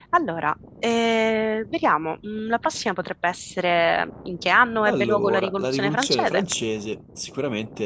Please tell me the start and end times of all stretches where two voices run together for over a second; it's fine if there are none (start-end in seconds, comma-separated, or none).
4.8-6.4